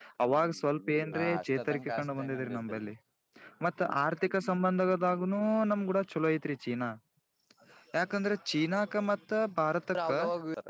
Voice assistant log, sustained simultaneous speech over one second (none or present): present